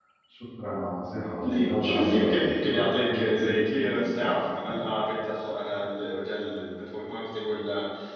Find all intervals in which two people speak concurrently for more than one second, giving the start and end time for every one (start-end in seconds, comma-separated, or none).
1.3-3.6